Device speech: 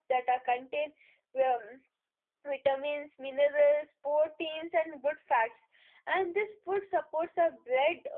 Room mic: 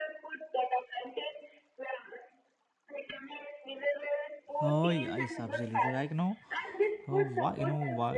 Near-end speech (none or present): present